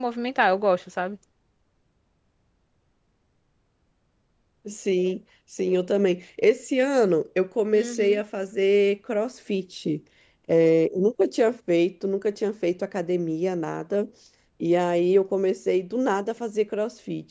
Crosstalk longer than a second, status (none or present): none